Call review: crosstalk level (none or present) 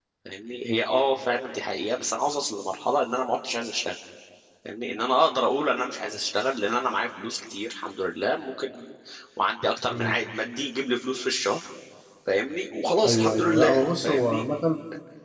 present